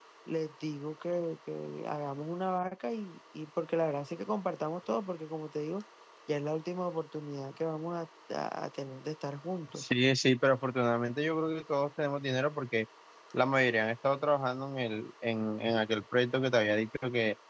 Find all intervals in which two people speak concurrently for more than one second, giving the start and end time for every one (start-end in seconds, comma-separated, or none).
none